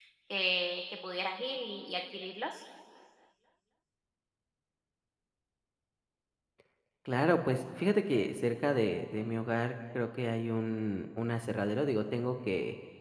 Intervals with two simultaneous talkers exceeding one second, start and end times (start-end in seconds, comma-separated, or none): none